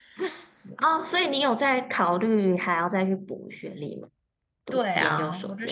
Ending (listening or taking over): taking over